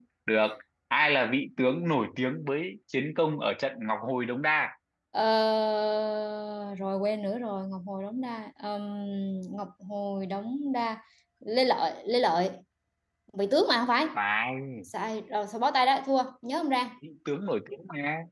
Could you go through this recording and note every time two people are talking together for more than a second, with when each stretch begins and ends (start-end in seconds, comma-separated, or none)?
none